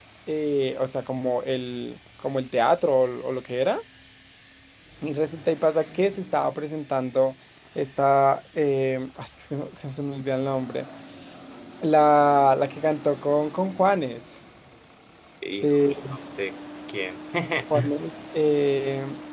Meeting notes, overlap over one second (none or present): none